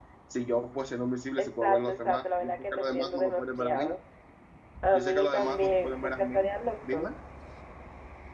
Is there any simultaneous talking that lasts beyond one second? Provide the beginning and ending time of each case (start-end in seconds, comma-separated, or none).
1.4-3.9, 4.9-6.4